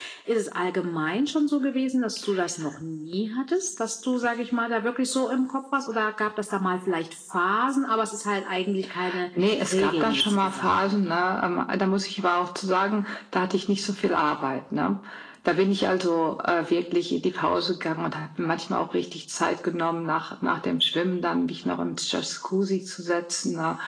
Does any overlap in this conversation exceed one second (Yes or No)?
Yes